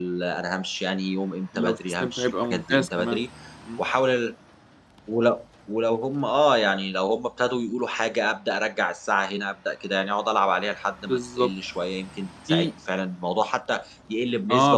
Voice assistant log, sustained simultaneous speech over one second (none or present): present